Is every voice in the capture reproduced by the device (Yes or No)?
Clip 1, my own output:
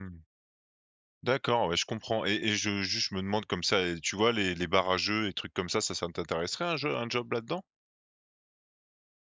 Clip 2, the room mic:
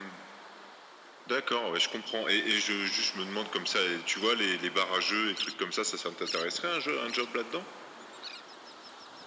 Yes